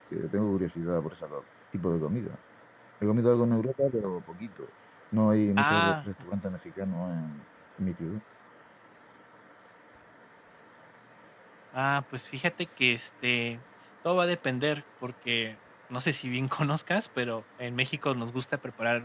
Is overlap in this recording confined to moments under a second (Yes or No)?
Yes